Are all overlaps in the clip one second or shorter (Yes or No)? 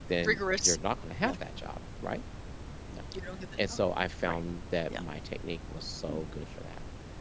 Yes